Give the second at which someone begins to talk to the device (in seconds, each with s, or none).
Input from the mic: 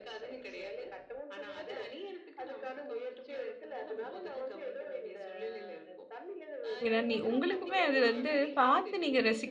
6.9 s